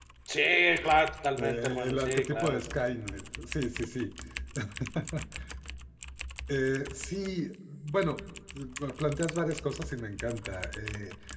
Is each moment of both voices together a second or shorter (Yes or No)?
No